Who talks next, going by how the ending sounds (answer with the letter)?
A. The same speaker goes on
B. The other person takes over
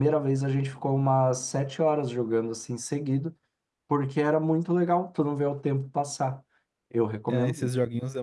B